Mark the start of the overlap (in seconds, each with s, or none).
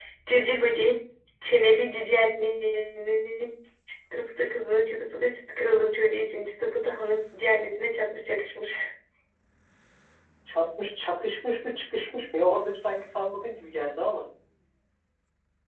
none